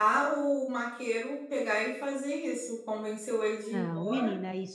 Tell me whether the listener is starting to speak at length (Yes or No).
Yes